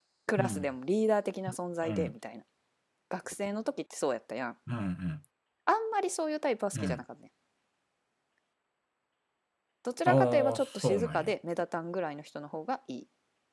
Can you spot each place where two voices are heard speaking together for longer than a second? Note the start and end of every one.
10.1-11.3

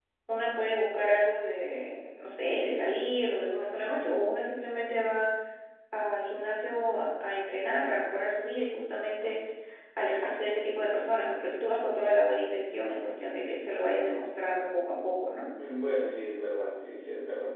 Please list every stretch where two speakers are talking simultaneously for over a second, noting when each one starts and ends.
none

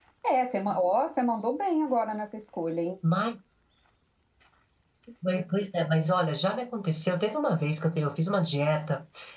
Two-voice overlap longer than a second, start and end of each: none

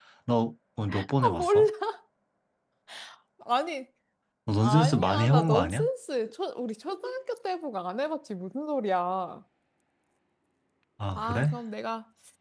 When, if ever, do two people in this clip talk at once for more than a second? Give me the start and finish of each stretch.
4.6-5.8

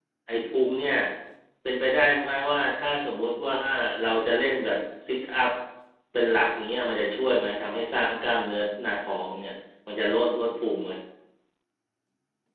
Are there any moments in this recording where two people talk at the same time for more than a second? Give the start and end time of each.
none

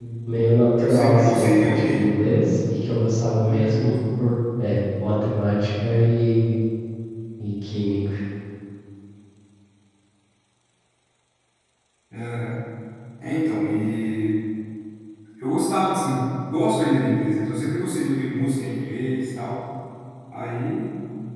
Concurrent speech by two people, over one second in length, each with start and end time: 0.8-2.1

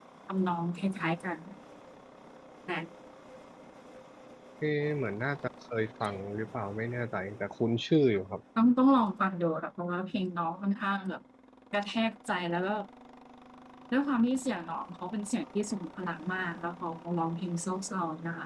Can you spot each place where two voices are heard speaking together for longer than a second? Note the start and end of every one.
none

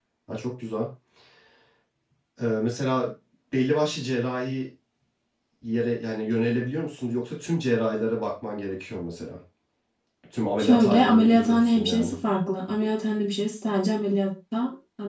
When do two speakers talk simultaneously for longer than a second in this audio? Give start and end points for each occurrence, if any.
10.6-12.1

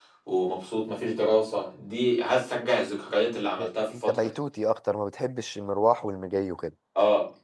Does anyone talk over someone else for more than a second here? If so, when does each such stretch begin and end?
none

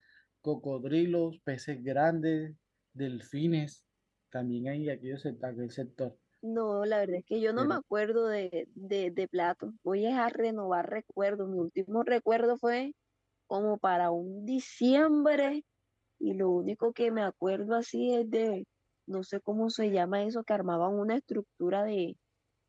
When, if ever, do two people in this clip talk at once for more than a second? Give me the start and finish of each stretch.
none

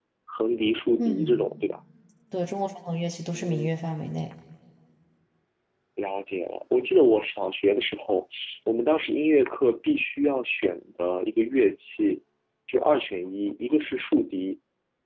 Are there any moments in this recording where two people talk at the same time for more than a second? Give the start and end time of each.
none

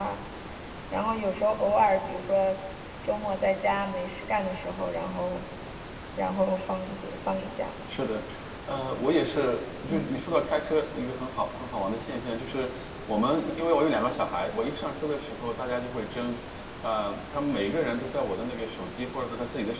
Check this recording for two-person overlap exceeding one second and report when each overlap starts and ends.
none

